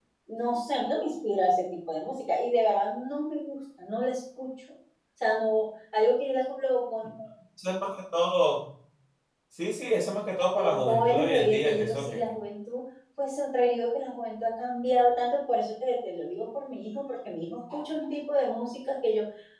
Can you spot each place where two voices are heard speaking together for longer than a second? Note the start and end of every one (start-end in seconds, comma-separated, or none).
10.6-12.2